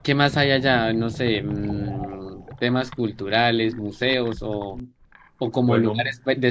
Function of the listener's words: listening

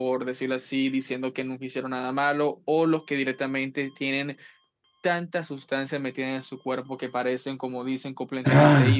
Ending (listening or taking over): taking over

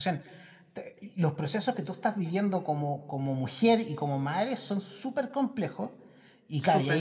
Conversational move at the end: listening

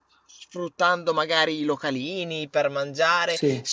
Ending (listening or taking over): listening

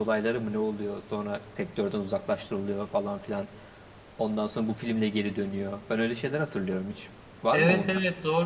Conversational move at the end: taking over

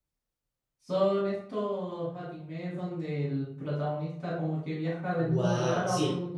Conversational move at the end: taking over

